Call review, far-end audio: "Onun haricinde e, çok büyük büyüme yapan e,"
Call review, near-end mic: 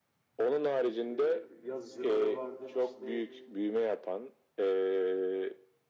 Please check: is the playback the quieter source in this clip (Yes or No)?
No